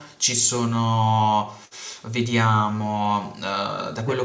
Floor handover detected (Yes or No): No